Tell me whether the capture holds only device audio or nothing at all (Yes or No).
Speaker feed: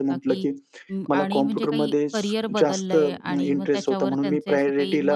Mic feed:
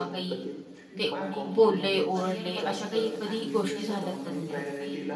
No